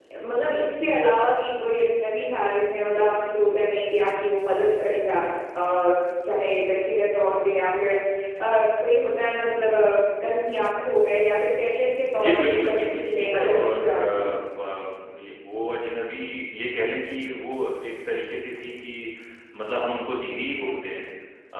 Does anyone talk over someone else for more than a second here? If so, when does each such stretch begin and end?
12.2-14.2

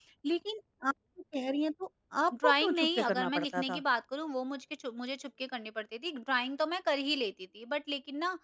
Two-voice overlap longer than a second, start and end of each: 2.3-3.8

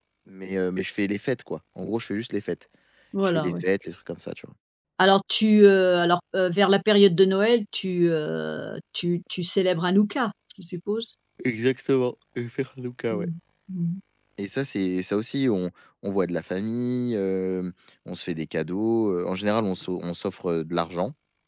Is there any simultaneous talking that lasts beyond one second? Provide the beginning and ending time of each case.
none

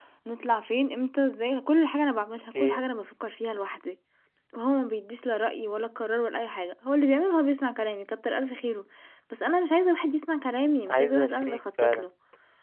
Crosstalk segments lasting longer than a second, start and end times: 10.9-12.1

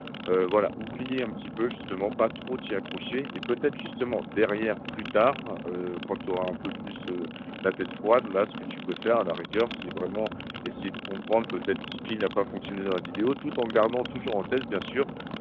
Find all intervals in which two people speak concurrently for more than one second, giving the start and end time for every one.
none

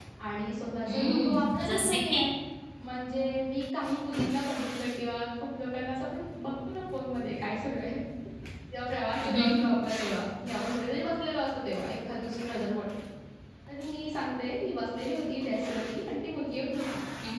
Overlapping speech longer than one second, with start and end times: 0.9-2.2

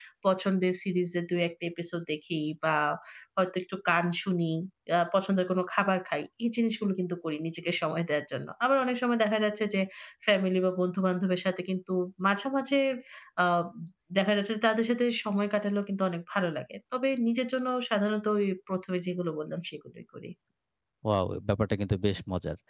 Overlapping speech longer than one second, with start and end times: none

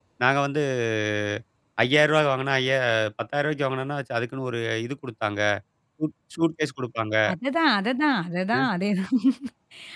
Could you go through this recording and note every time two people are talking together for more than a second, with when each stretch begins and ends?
none

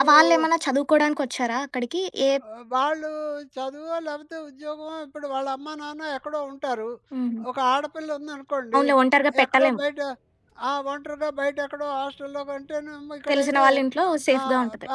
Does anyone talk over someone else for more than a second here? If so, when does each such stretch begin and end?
none

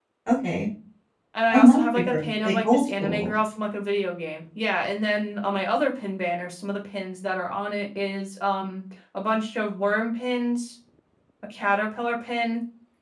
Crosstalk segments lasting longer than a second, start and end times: 1.5-3.3

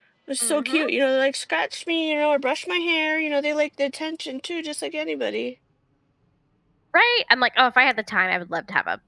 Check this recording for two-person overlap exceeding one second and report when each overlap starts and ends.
none

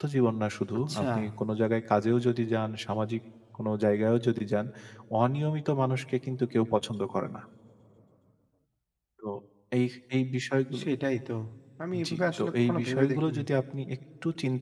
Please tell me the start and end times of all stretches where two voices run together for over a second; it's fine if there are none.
12.1-13.4

